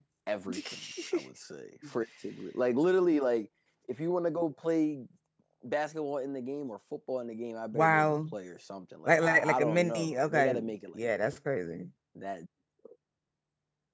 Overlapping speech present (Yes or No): Yes